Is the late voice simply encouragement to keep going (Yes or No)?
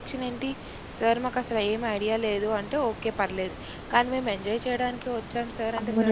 No